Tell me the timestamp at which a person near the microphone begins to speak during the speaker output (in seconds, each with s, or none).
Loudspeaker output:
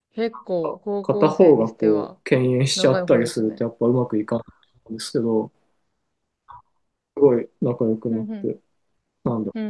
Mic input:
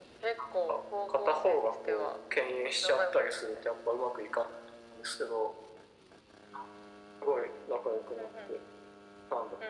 none